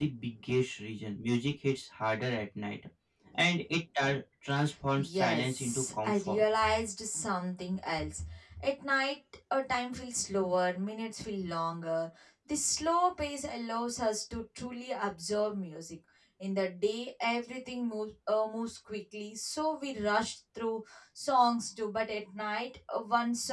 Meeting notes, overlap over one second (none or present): present